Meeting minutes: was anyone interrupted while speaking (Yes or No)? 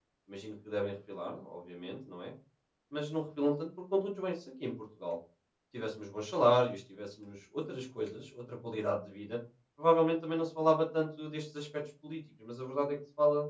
No